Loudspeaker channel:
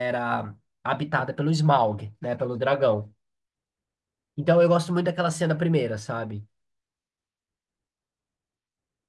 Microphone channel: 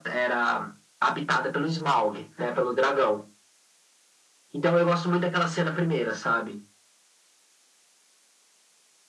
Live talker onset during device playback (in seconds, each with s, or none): none